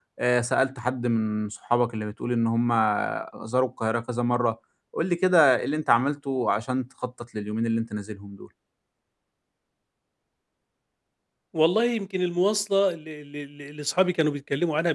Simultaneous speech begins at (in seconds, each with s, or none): none